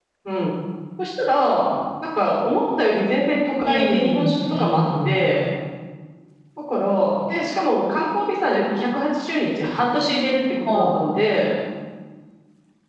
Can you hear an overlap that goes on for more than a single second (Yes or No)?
Yes